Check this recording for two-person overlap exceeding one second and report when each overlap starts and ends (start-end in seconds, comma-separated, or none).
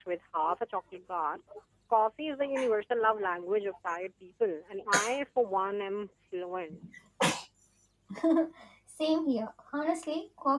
none